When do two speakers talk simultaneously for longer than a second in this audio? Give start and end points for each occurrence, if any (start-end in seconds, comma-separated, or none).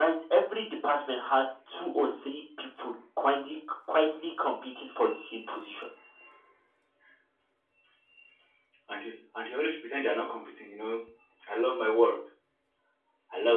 none